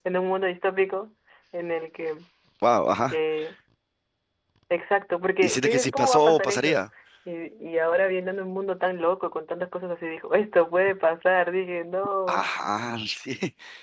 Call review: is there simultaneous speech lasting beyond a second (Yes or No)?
Yes